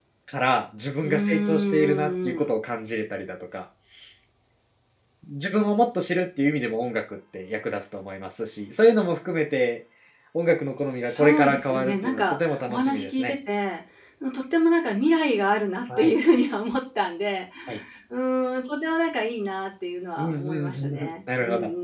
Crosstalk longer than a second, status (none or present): present